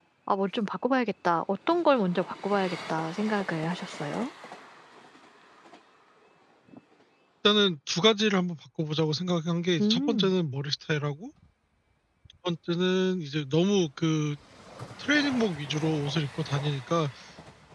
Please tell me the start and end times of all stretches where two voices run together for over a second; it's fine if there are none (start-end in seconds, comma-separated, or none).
none